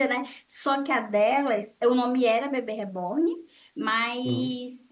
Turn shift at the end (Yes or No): No